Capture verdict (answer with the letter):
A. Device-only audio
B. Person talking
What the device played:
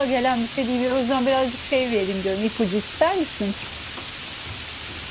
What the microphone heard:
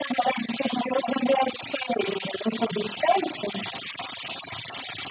A